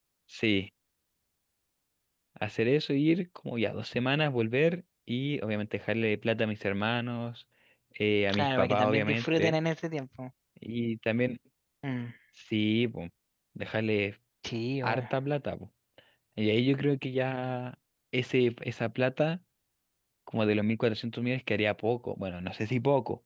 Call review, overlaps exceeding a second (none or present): present